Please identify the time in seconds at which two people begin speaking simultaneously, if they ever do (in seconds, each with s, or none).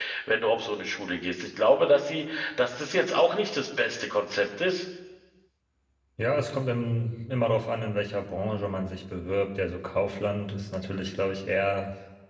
none